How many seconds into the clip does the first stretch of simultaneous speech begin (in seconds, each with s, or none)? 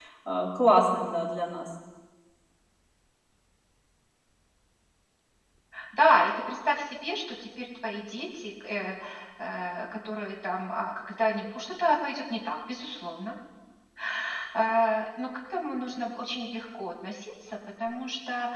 none